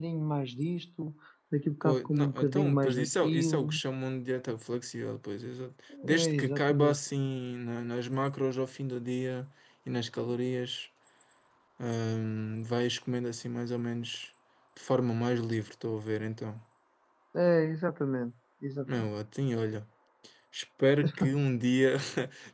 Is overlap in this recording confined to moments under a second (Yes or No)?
No